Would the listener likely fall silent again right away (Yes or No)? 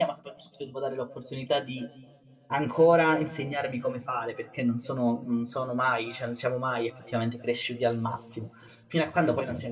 Yes